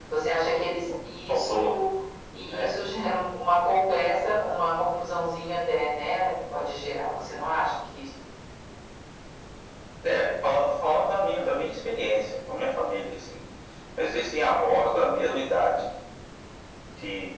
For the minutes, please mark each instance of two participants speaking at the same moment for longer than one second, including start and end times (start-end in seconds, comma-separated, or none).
none